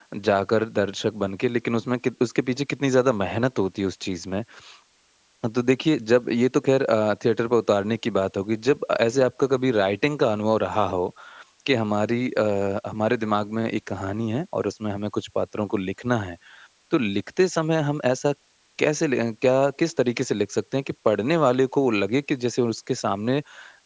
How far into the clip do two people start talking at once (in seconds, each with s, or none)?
none